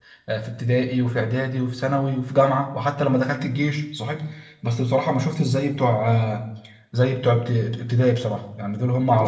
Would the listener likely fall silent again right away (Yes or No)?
No